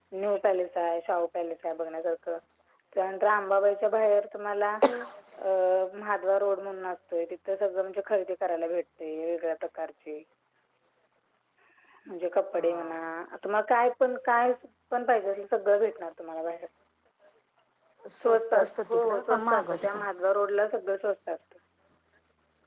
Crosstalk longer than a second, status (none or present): present